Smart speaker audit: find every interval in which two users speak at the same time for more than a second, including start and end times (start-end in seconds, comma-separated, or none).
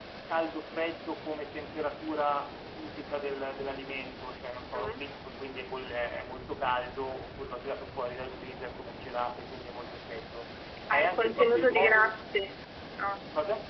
10.9-12.1